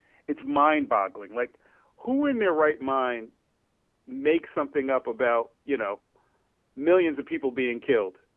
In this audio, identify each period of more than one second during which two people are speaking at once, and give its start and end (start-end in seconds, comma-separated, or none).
none